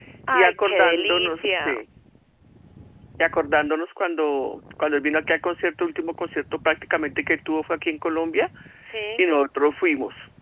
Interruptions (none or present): present